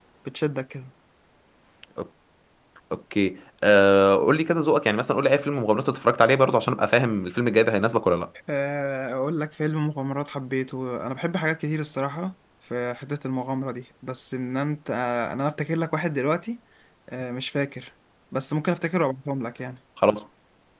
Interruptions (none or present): none